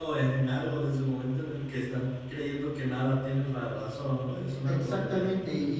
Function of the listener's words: taking over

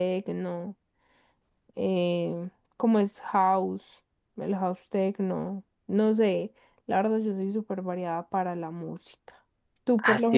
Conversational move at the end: taking over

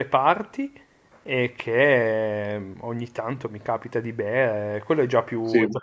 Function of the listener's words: listening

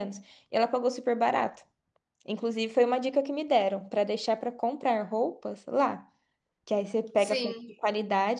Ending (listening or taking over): listening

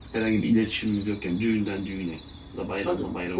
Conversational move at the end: taking over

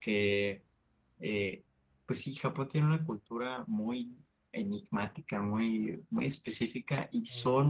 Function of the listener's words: listening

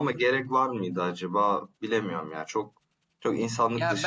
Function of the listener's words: taking over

